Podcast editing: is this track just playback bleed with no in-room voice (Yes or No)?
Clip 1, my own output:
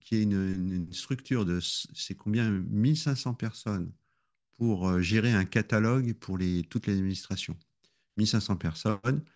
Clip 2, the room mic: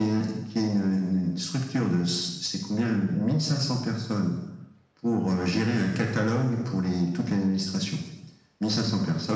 Yes